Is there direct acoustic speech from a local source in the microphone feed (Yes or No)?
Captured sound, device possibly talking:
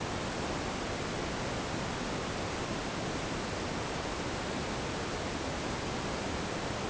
No